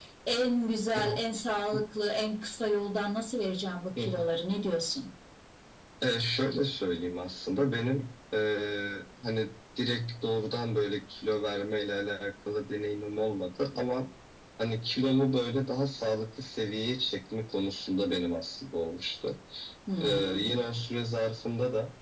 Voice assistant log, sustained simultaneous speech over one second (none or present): none